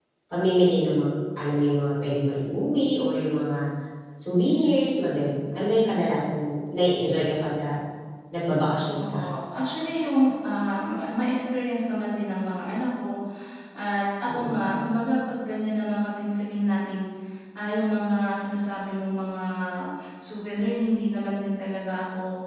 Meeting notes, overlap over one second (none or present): none